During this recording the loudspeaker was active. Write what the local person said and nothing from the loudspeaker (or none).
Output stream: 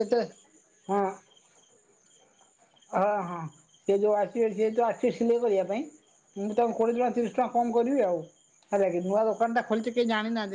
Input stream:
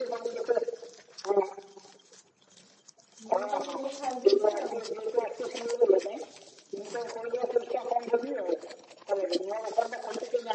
ମୁଁ ସିଲେଇ ଛାଡି ଦେଇେଚି ଆଉ।